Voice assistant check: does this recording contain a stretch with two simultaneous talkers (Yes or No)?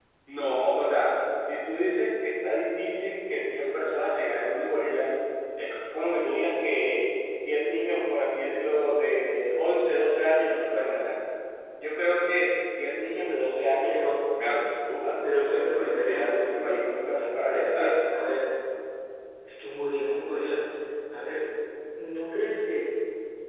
Yes